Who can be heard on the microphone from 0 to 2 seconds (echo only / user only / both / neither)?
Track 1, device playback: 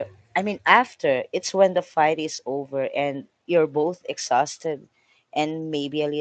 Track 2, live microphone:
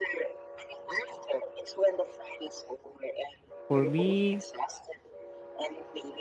echo only